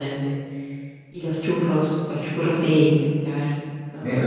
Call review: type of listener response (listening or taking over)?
taking over